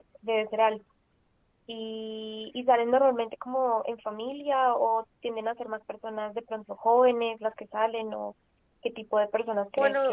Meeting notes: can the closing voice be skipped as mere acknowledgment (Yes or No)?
Yes